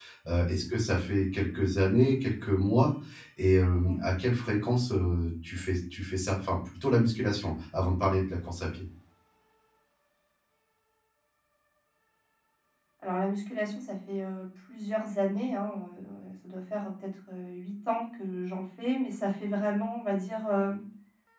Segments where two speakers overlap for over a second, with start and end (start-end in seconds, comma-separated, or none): none